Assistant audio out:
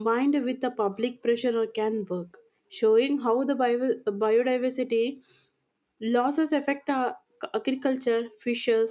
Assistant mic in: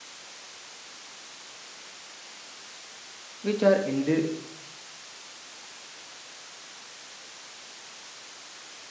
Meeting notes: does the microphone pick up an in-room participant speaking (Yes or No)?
Yes